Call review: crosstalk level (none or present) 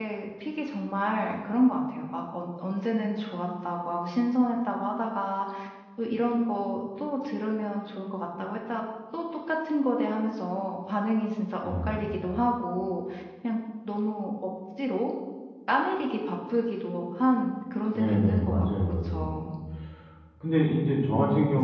present